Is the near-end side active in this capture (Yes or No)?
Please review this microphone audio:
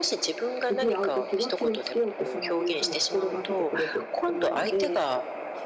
Yes